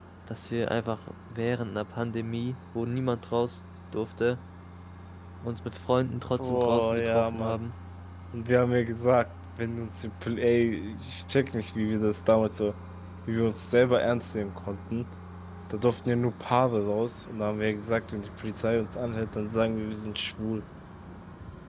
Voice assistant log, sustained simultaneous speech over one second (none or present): present